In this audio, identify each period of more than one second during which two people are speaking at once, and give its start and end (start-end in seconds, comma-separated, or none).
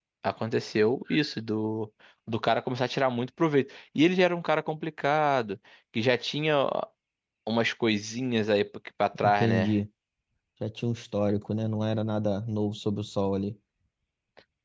none